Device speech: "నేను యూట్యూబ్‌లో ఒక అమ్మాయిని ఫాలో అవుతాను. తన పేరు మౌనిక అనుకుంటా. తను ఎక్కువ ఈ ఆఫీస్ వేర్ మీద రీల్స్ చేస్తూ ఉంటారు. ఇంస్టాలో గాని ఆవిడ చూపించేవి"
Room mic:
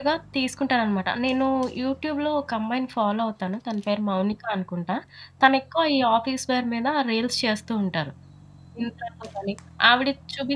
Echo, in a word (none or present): present